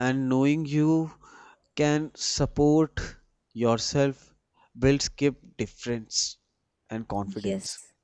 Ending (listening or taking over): taking over